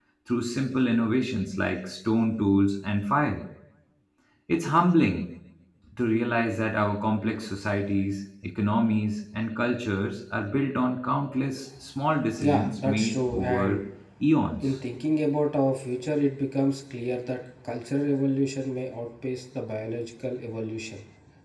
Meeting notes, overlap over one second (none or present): present